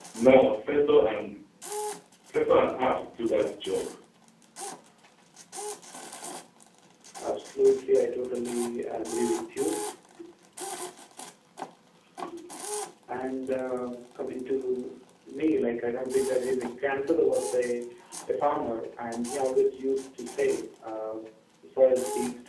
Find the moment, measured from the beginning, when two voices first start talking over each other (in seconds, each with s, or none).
none